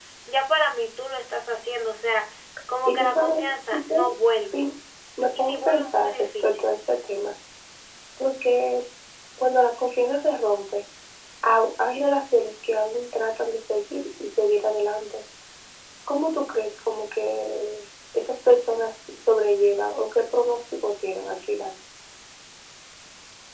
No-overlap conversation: No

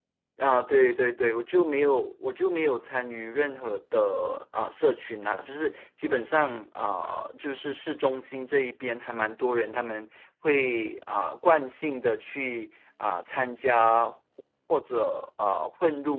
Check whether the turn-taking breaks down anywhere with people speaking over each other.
No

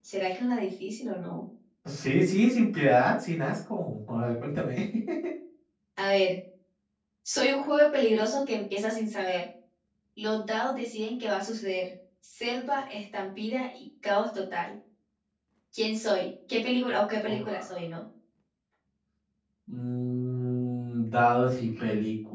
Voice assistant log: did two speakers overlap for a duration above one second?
No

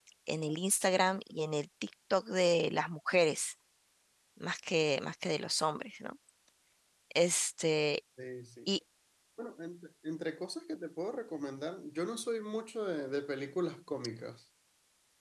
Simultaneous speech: No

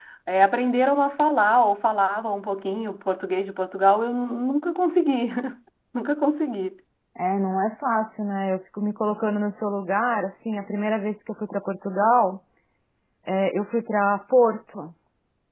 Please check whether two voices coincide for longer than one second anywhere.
No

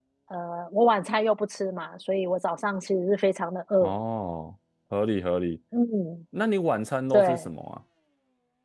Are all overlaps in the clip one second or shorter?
Yes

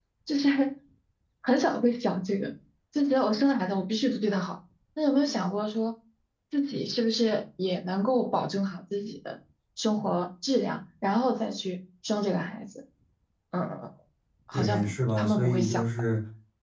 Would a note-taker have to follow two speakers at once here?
Yes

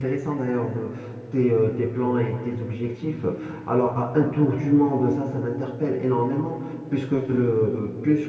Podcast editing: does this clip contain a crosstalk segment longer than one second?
No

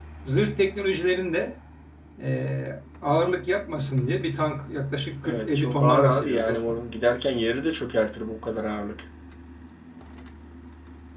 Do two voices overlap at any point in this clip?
Yes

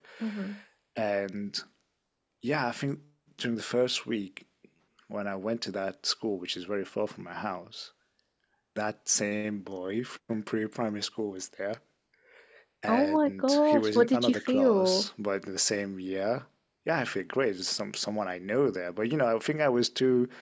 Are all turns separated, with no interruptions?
No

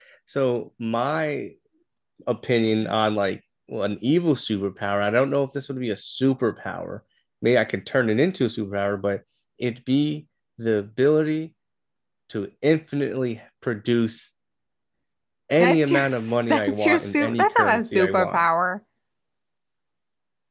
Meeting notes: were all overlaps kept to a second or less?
No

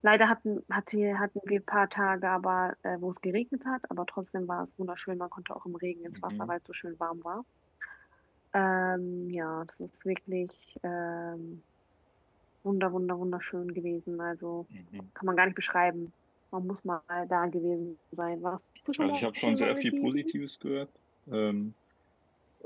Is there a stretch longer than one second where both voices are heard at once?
Yes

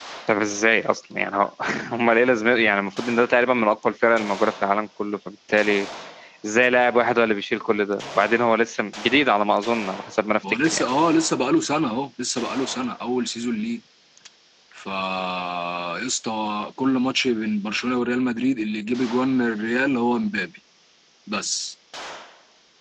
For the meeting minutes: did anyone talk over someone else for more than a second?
No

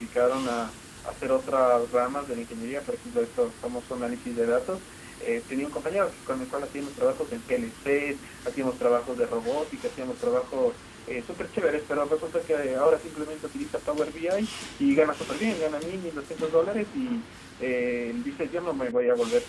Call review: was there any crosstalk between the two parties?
No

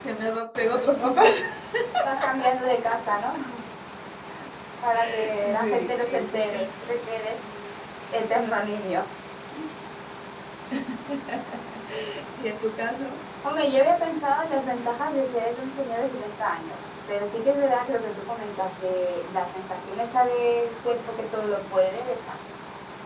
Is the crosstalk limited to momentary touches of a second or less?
No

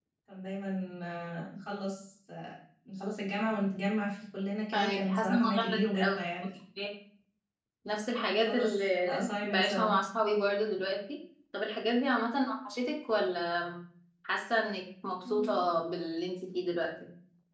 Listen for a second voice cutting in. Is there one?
Yes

